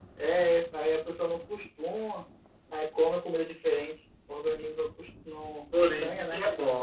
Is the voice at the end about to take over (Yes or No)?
Yes